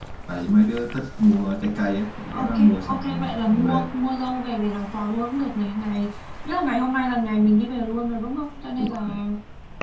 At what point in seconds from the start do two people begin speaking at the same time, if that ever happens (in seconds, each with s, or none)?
2.3 s